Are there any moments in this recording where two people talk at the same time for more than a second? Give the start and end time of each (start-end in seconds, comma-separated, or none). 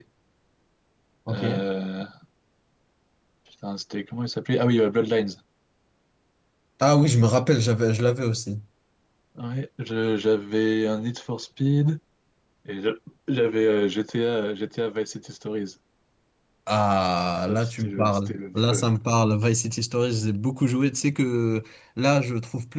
17.5-18.8